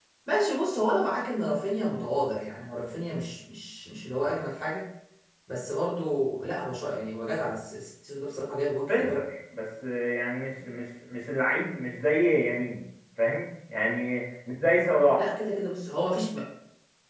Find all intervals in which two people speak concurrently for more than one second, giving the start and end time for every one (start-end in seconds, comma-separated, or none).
none